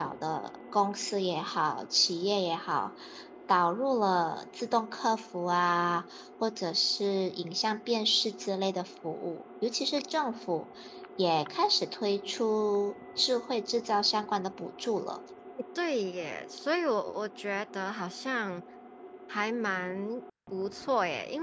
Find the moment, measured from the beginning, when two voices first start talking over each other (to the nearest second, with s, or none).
none